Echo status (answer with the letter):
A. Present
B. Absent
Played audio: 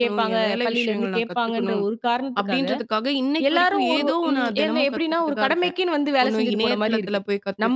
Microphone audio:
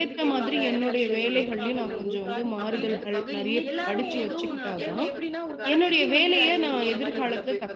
A